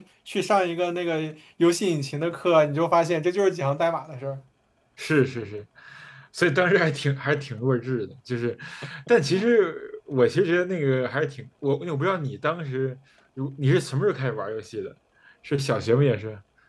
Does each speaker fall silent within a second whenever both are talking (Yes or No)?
Yes